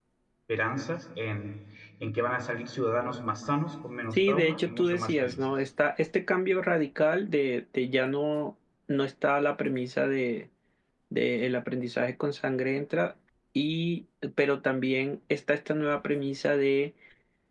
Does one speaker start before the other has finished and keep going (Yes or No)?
Yes